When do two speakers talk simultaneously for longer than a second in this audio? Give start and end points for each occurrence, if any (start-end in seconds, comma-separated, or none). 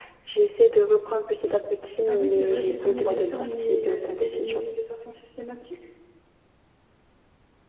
2.1-4.6